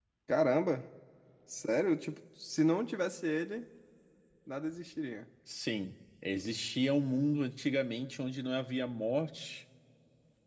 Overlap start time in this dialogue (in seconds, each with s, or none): none